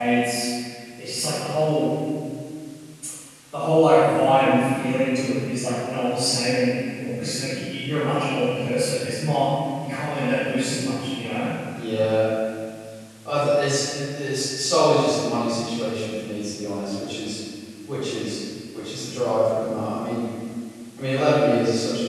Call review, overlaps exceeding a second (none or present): none